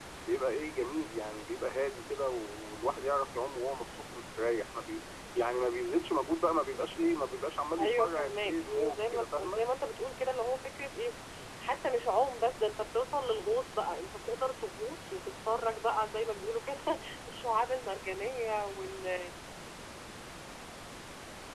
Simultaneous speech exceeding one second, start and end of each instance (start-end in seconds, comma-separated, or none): 7.8-9.6